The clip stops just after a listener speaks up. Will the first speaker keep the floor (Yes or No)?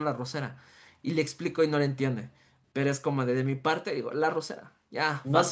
No